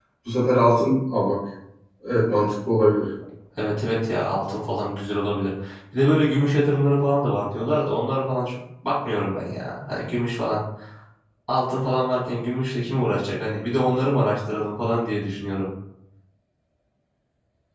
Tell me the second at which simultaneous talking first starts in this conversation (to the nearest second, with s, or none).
none